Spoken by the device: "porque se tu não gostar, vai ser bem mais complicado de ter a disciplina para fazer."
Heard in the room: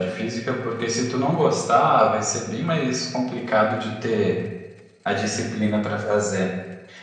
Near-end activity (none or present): none